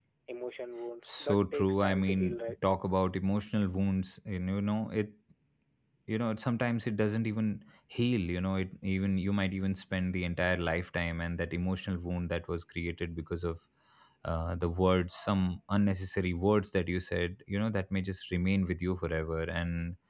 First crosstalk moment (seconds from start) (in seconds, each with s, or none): 1.0 s